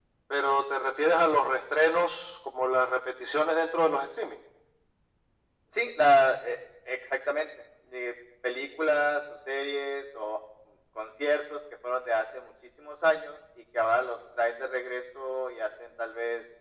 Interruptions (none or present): none